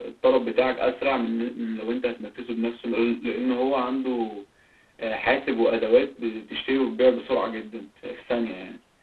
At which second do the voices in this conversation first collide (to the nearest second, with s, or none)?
none